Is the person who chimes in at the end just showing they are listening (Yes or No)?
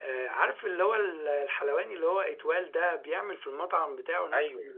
Yes